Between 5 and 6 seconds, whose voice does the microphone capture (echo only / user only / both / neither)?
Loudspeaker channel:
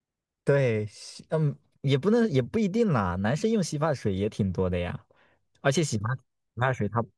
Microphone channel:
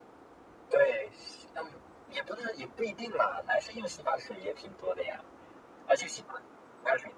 echo only